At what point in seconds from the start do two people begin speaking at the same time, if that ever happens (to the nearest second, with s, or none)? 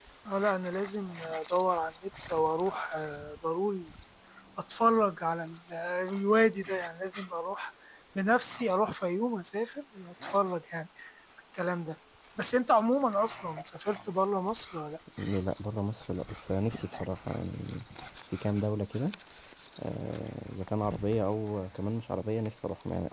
none